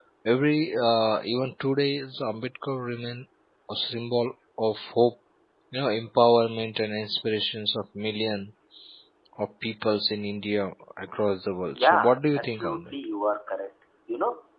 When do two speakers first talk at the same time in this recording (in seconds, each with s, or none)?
11.7 s